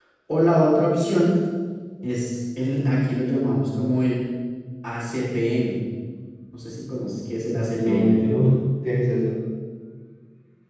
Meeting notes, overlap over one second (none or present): none